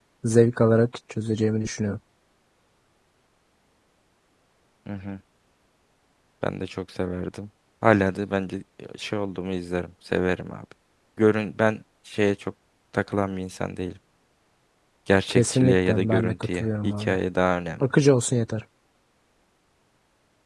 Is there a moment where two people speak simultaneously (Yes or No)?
Yes